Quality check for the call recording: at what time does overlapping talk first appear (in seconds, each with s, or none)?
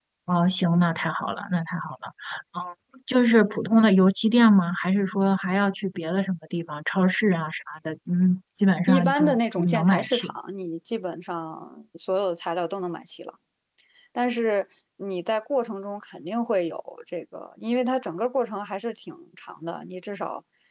8.9 s